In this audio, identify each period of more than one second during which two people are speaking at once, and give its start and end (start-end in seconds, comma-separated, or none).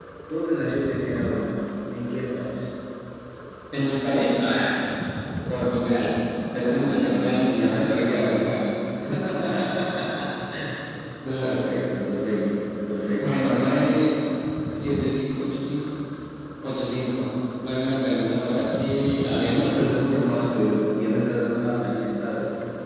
6.5-8.6